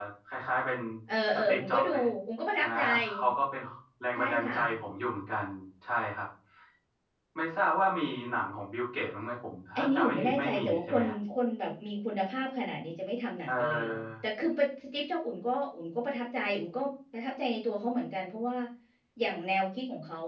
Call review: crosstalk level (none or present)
present